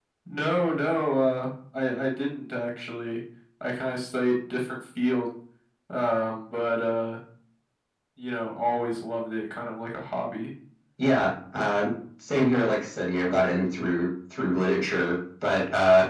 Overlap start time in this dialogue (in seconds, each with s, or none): none